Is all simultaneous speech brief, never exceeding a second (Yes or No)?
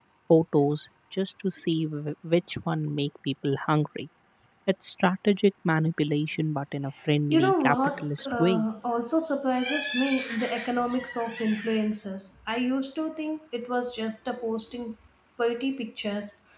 No